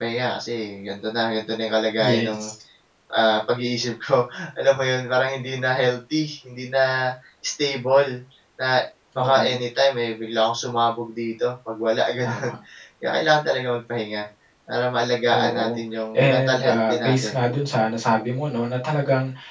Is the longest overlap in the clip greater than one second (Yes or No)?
Yes